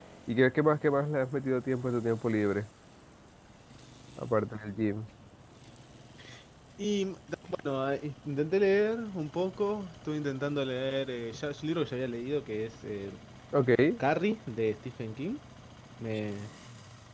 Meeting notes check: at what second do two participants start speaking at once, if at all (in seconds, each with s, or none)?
none